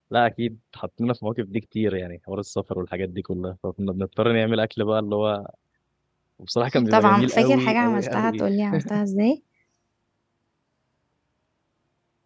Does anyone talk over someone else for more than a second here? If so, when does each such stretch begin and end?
6.9-8.4

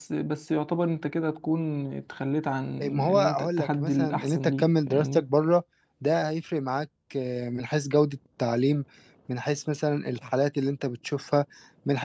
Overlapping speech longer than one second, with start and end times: 3.1-5.2

